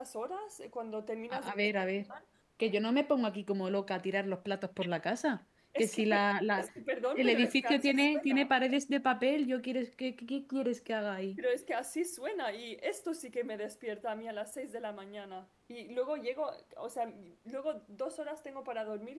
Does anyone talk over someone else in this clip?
Yes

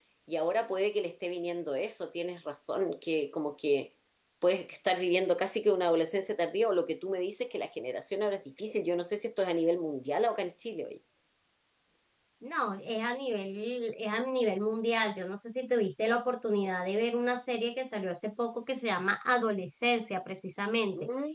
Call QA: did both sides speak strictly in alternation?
Yes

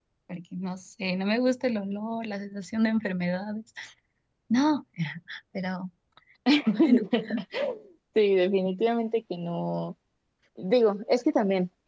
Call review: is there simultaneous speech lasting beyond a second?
No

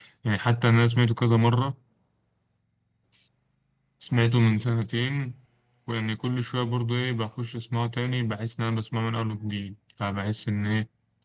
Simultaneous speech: No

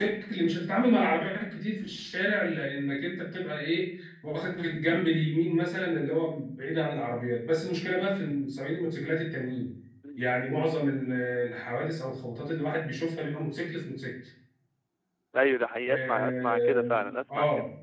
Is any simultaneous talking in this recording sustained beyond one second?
Yes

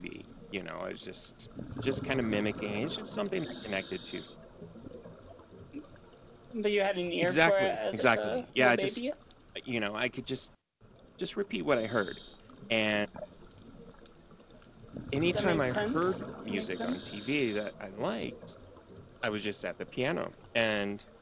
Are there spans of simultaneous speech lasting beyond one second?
Yes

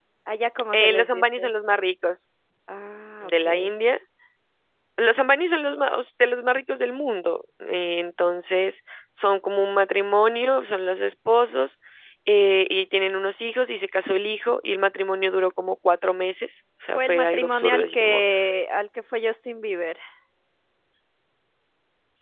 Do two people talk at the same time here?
Yes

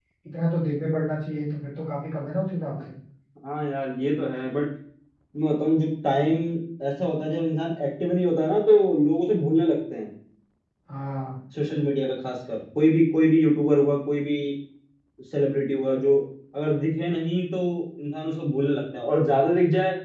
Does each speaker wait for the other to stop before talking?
Yes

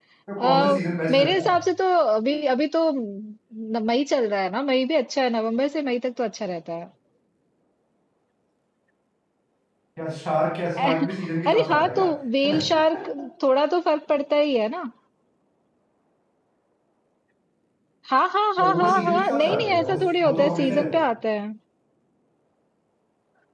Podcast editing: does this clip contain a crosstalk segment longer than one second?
Yes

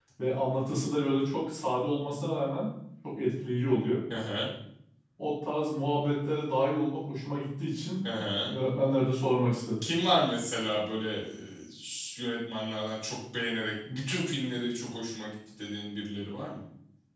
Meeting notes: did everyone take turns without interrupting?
Yes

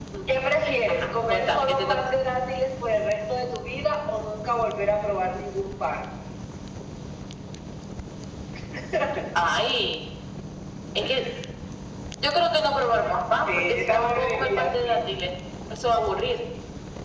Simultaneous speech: Yes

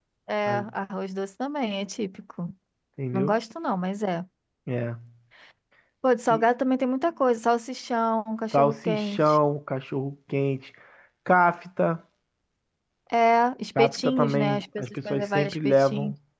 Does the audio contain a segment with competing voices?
Yes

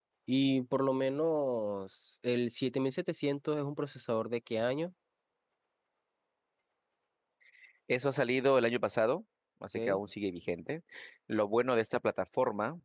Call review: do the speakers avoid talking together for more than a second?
Yes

